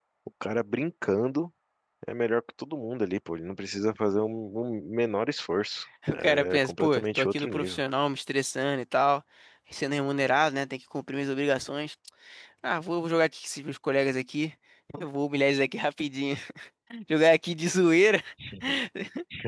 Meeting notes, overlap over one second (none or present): present